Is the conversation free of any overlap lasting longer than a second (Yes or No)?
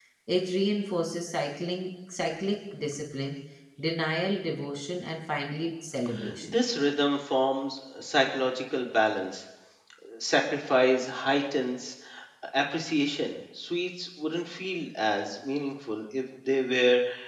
Yes